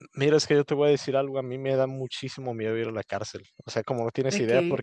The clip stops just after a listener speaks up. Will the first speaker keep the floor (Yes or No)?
Yes